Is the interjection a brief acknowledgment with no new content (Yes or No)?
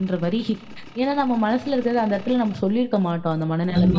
No